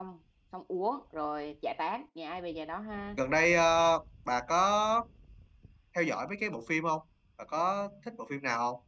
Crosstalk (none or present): none